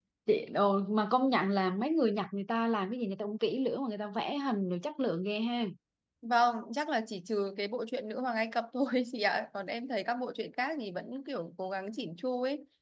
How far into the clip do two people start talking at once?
none

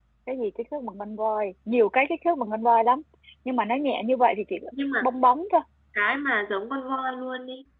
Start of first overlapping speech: none

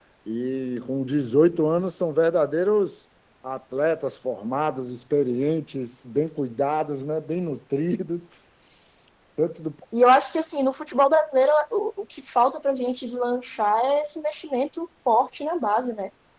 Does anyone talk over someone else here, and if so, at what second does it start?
none

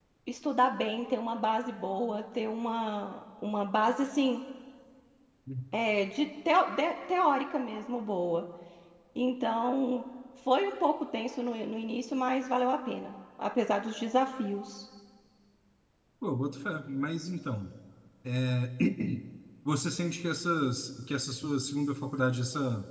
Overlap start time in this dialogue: none

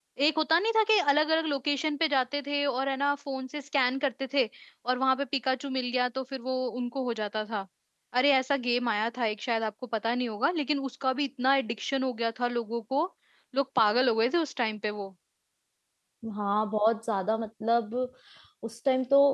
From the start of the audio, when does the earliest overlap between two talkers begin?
none

